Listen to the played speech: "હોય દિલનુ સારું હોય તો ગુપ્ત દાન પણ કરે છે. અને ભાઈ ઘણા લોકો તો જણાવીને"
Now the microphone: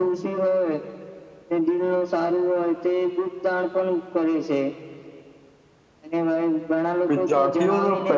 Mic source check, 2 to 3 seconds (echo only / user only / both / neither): echo only